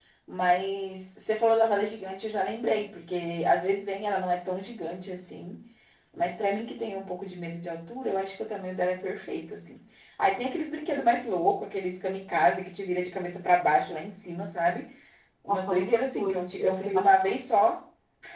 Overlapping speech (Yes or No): Yes